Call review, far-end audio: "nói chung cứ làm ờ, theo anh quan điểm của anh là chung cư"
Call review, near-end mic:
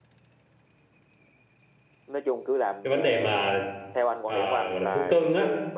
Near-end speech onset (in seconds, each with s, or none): 2.8 s